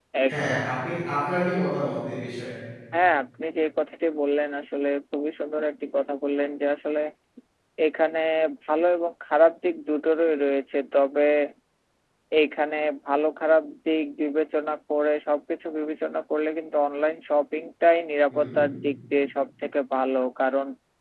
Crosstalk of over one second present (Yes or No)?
No